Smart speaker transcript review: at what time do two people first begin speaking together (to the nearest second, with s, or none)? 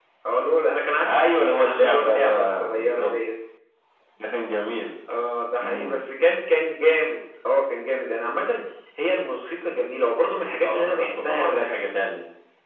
1 s